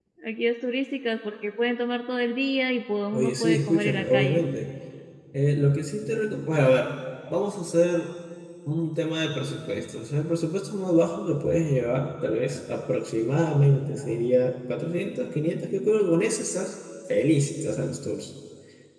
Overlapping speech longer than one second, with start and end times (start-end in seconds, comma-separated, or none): 3.1-4.4